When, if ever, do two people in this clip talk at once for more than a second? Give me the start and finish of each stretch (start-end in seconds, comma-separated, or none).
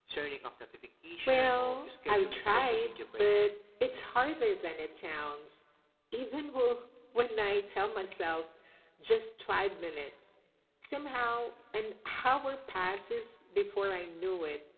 1.3-3.5